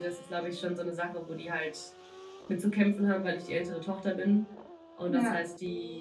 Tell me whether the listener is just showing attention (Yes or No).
Yes